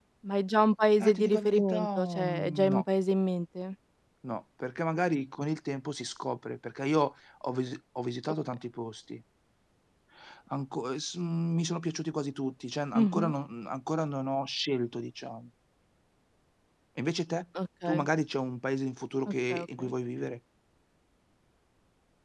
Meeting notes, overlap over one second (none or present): present